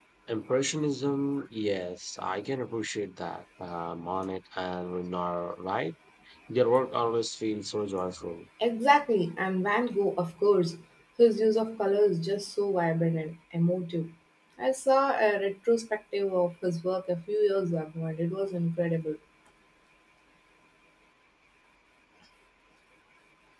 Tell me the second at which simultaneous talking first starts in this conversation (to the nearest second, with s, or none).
none